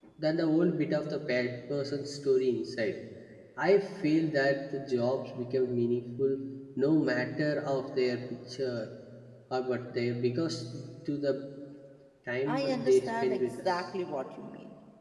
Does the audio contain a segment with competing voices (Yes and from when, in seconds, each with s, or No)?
Yes, from 12.5 s